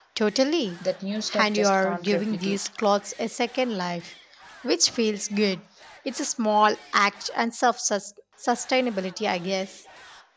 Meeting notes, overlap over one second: present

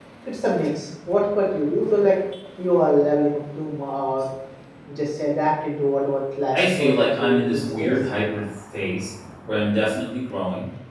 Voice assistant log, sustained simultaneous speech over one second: present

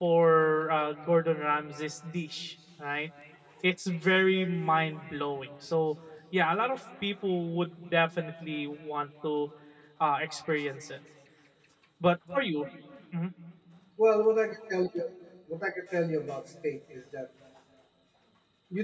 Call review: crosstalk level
none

